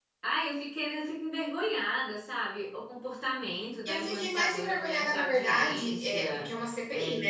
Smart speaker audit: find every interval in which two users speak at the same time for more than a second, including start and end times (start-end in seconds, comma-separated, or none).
3.9-6.4